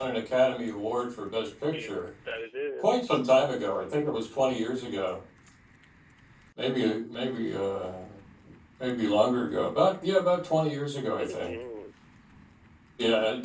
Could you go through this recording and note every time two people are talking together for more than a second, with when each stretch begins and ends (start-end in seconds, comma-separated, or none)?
none